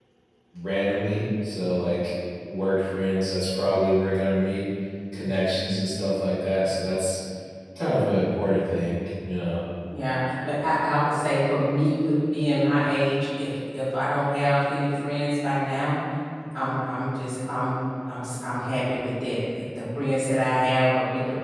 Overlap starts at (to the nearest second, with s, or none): none